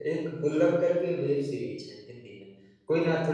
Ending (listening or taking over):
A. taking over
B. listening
B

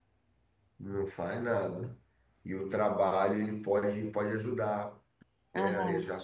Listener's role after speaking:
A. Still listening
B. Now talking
A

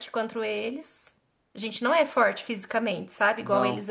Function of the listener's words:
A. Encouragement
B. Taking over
A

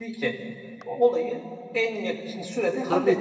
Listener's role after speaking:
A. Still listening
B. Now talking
B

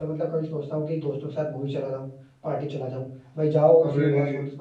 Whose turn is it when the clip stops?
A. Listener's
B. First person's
B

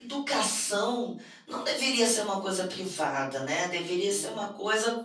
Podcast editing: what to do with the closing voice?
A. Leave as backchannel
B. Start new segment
A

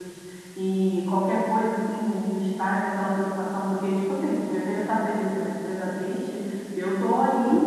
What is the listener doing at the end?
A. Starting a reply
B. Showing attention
B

